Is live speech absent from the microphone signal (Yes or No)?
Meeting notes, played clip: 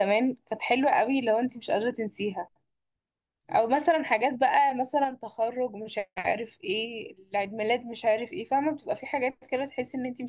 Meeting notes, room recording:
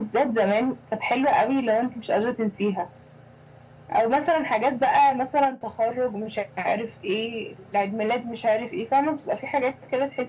Yes